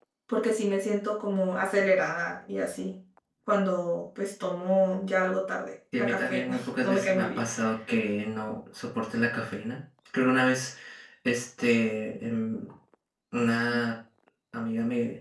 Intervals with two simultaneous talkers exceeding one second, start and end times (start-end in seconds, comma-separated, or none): 6.0-7.4